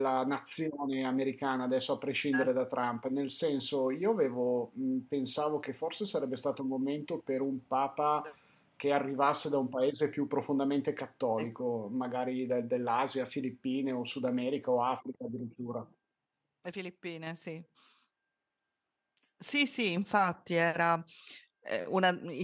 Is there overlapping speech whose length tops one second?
No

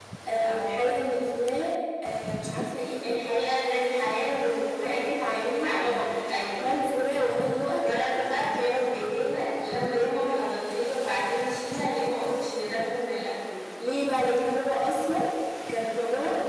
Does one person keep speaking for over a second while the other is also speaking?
Yes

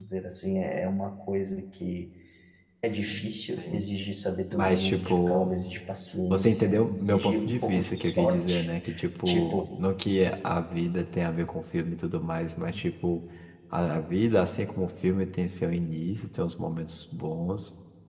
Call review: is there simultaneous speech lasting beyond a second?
Yes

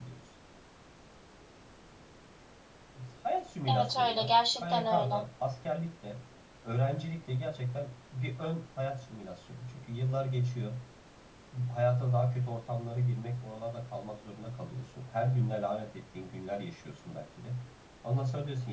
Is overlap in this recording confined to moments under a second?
No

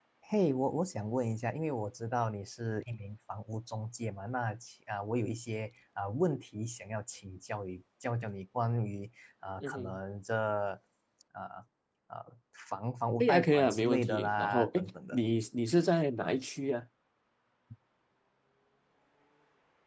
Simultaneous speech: Yes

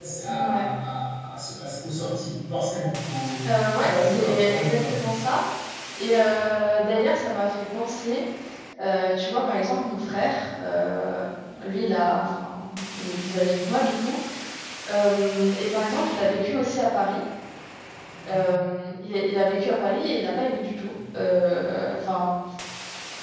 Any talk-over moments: Yes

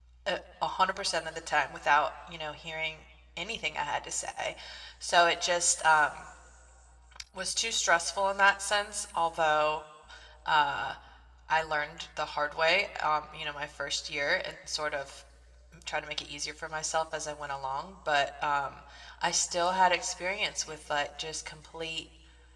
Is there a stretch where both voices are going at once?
No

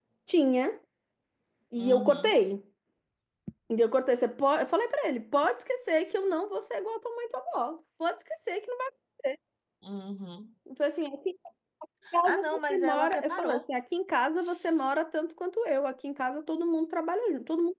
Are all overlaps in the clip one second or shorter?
No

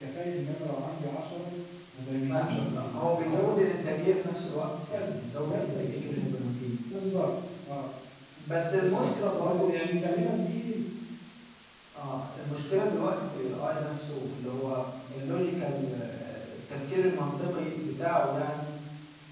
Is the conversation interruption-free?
No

